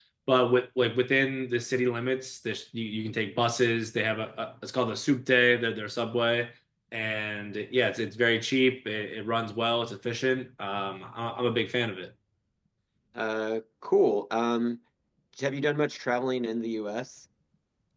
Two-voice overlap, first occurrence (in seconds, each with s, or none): none